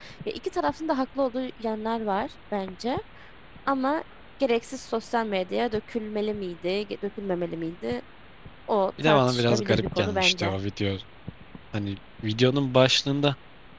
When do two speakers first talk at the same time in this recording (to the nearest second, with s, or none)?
9 s